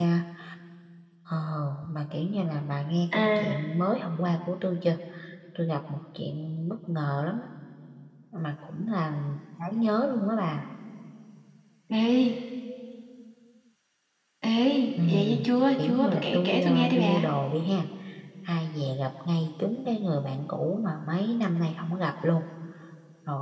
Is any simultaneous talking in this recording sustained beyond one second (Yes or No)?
Yes